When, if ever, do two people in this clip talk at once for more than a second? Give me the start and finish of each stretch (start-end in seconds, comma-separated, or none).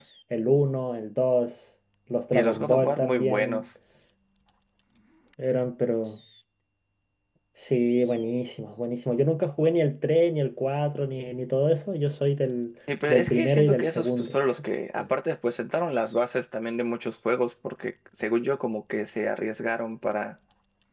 2.3-3.6, 13.1-14.3